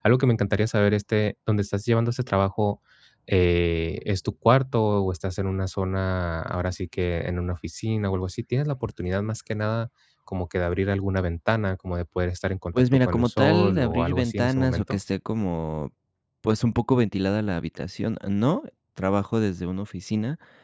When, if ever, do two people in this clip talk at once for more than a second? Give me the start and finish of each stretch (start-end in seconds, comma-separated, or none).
12.7-15.0